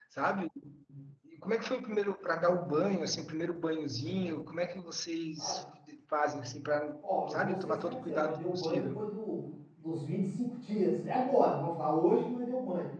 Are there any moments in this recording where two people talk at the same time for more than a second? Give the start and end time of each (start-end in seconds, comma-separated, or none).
7.3-9.0